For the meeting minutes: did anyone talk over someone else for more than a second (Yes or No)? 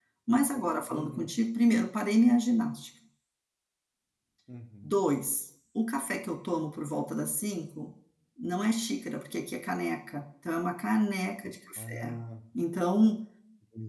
No